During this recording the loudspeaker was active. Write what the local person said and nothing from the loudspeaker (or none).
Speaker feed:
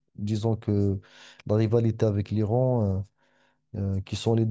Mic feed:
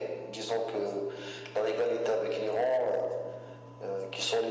none